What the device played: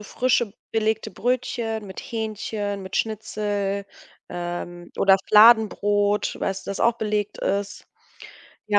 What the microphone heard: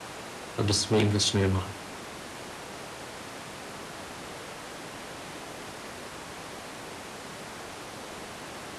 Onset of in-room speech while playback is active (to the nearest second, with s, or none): 1 s